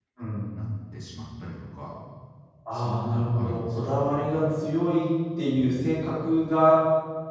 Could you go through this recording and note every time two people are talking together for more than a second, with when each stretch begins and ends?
2.7-4.5

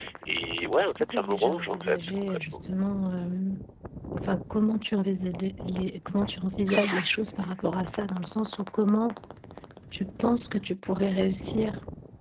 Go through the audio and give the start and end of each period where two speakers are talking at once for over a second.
0.8-2.6

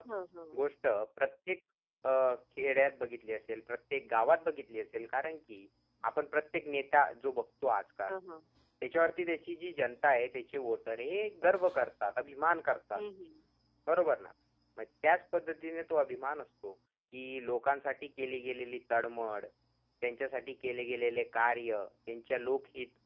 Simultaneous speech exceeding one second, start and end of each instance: none

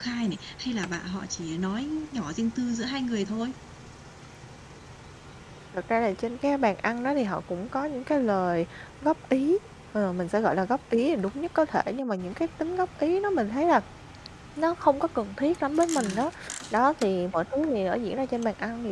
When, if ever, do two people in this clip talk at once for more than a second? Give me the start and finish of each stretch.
none

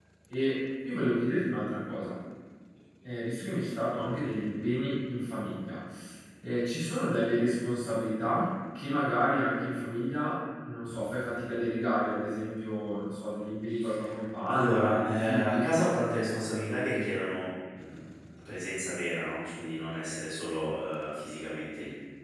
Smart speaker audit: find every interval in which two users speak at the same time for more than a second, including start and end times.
14.5-15.7

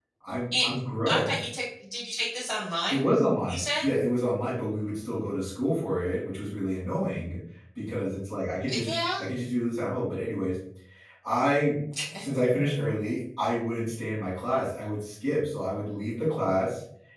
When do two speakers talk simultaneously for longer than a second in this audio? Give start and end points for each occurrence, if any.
none

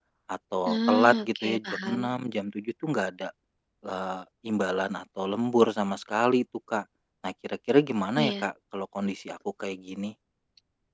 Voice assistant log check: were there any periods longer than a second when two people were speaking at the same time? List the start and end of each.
0.7-2.0

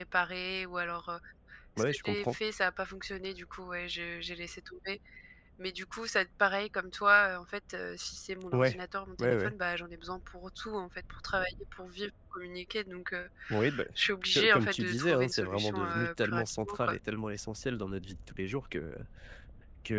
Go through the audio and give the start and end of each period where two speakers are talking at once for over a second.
14.3-16.9

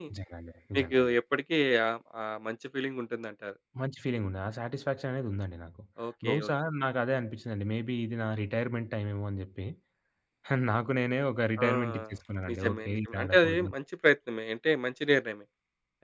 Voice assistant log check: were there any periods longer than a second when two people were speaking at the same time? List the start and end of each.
12.5-13.7

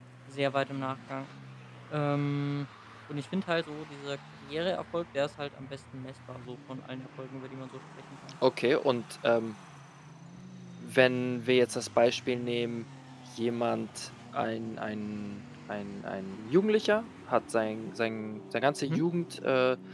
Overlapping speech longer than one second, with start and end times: none

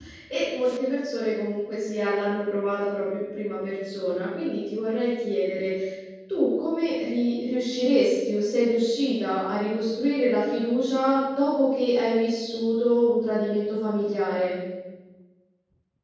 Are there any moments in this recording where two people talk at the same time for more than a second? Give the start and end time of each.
none

